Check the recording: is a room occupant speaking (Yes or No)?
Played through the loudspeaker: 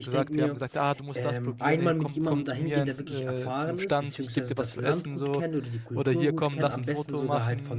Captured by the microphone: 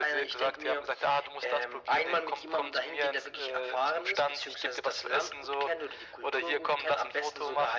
No